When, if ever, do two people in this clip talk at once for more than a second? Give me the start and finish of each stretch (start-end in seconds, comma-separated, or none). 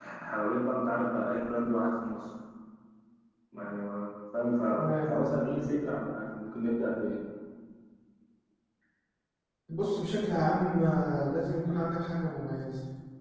none